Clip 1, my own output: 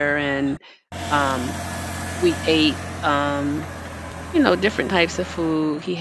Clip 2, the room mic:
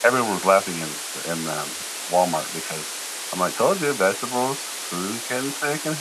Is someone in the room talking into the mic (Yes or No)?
Yes